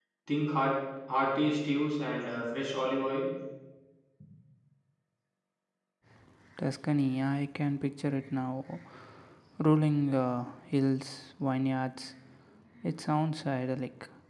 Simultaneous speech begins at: none

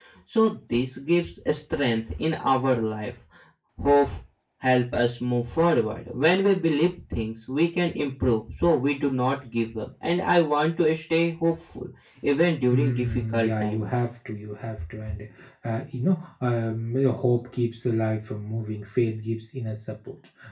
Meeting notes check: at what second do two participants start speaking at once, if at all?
13 s

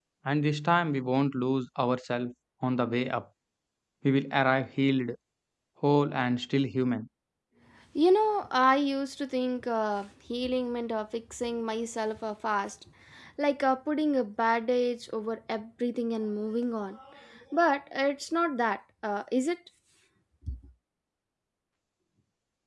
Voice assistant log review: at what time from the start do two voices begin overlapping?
none

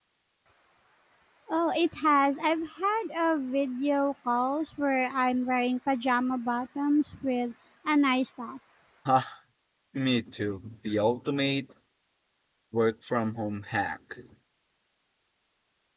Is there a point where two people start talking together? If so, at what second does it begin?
none

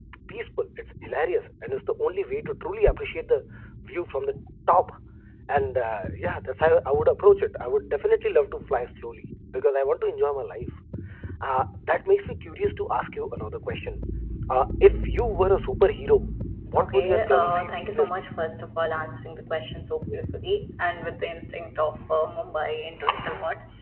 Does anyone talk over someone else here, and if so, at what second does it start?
17 s

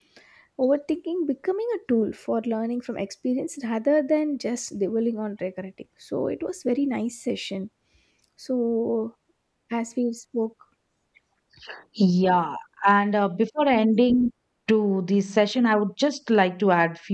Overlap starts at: none

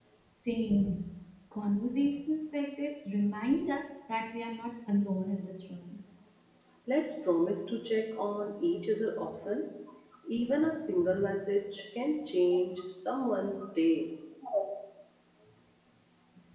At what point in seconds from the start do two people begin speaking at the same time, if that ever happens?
none

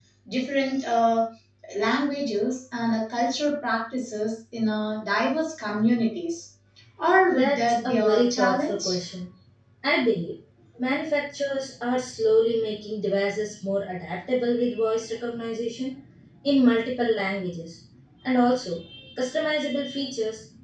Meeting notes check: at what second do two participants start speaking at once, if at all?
7 s

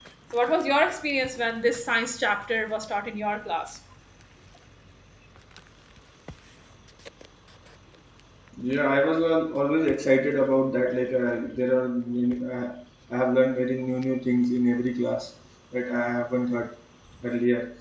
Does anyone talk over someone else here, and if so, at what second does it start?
none

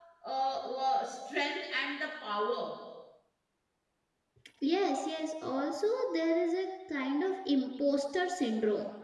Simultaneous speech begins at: none

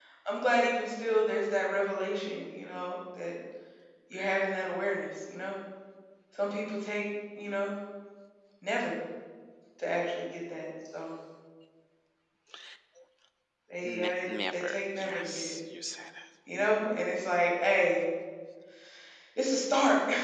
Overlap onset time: 14 s

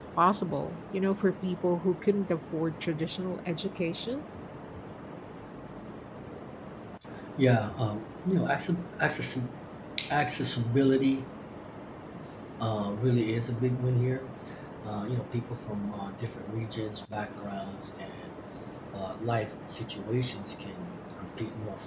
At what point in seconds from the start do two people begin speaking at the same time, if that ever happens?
none

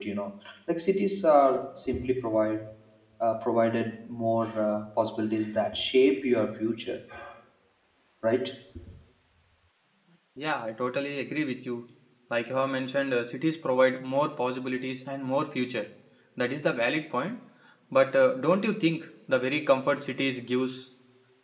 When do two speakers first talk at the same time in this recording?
none

